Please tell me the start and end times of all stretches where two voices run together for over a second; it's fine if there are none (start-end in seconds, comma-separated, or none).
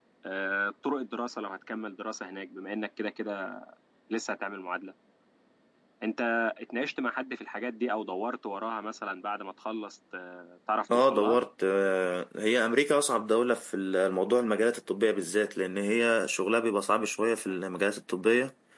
none